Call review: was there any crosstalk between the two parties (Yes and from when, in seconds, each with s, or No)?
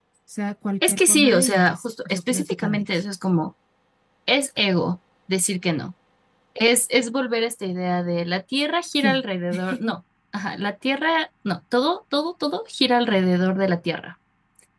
Yes, from 0.8 s